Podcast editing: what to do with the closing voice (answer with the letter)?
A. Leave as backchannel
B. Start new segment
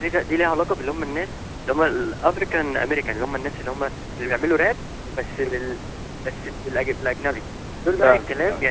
A